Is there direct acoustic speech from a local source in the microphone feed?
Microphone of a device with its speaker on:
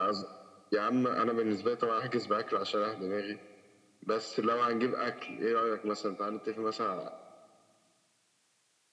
No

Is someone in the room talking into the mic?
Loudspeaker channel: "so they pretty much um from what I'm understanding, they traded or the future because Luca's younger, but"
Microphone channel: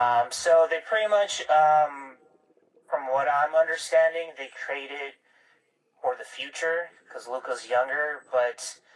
No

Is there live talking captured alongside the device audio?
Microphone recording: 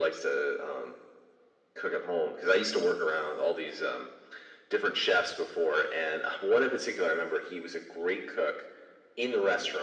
No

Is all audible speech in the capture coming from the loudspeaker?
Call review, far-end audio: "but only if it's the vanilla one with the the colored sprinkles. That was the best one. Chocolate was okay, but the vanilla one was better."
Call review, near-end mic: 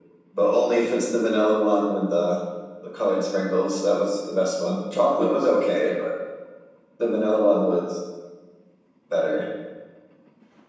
Yes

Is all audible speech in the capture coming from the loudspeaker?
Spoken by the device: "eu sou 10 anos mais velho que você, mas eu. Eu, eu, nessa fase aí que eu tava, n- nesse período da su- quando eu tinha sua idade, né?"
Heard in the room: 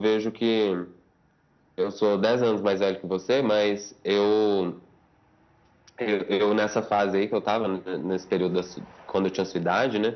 Yes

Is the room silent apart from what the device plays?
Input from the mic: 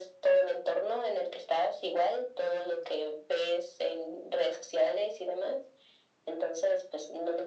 Yes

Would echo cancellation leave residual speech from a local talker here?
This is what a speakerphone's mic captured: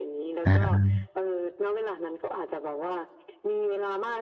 Yes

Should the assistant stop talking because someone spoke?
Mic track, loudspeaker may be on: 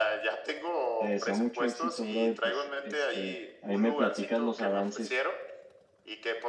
Yes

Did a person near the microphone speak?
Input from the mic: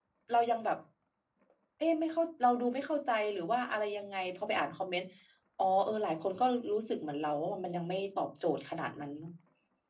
Yes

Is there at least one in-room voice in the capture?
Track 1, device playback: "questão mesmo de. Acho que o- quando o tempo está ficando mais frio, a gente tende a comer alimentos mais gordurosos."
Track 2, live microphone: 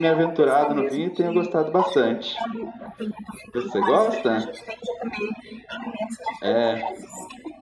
Yes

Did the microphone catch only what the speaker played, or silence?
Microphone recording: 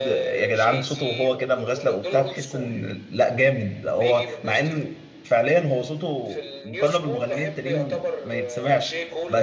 No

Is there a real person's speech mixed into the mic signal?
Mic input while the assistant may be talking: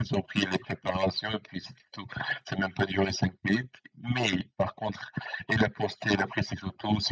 No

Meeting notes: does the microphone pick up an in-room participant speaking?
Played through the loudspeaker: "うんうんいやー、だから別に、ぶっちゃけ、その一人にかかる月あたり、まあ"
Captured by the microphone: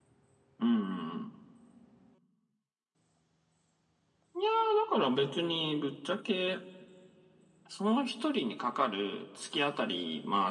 No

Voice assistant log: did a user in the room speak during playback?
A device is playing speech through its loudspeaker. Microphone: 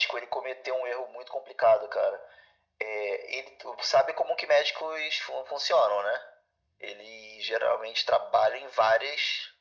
No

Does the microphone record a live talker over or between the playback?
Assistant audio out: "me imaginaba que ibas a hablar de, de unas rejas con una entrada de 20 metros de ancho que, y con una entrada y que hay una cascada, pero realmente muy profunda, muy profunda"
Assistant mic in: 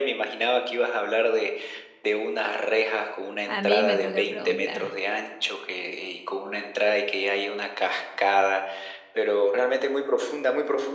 Yes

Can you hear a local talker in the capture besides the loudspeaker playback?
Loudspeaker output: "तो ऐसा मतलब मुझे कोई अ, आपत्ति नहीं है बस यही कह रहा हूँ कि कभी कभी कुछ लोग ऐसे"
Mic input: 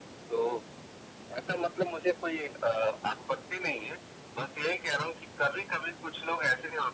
No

